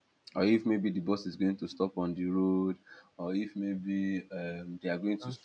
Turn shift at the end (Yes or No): No